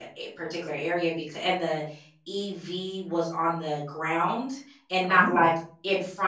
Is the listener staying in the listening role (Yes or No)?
Yes